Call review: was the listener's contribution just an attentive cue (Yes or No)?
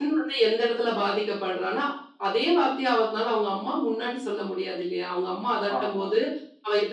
Yes